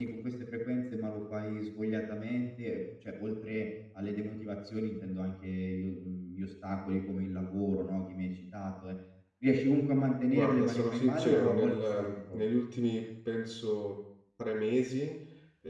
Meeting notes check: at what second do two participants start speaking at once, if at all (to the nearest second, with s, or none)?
10 s